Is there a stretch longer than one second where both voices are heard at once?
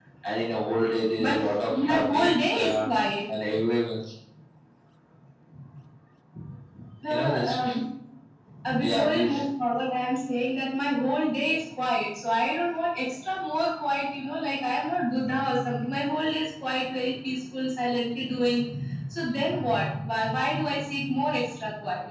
Yes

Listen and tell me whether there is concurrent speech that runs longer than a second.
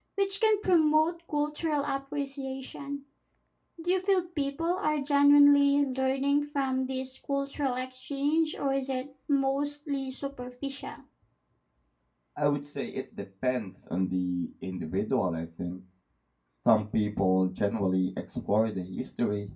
No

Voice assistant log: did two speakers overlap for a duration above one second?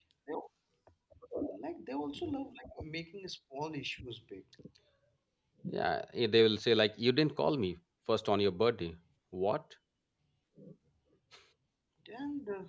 No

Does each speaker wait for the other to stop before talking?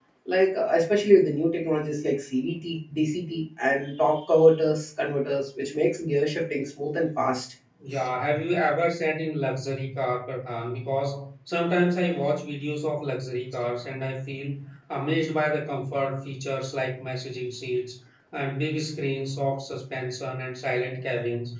Yes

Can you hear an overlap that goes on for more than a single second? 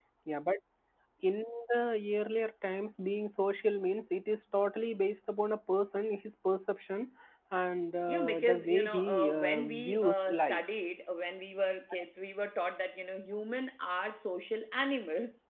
Yes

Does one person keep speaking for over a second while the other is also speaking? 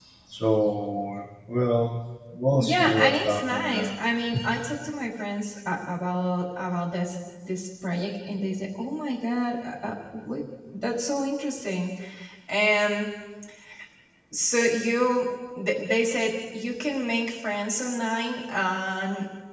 Yes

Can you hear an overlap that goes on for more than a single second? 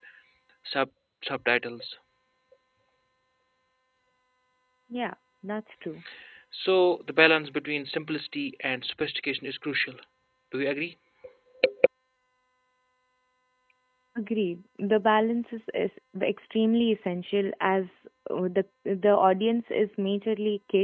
No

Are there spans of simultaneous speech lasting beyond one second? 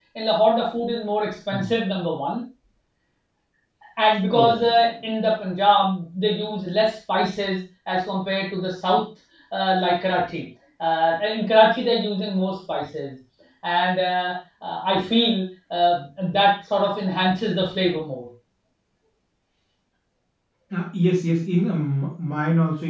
No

